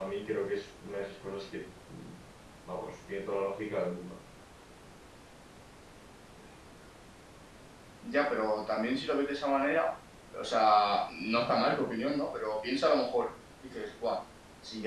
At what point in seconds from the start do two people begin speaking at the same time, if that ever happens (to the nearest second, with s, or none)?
none